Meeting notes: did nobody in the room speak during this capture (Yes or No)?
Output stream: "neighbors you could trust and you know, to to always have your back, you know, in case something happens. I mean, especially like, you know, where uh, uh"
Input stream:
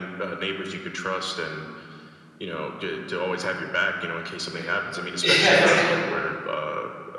No